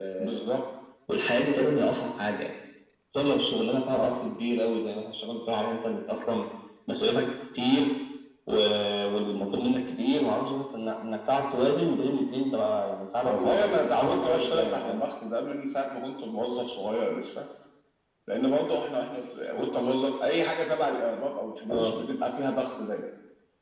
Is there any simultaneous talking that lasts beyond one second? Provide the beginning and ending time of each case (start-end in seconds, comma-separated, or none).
13.2-15.0